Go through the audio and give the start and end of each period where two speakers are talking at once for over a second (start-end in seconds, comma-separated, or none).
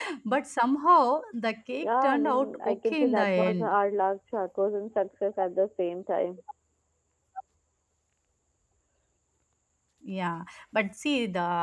1.8-3.7